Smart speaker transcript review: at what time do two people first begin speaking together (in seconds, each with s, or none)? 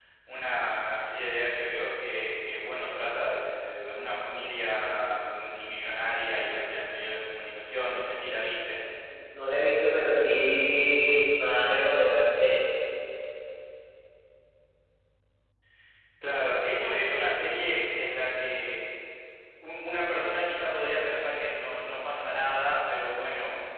none